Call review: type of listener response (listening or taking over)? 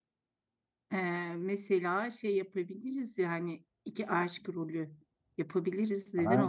taking over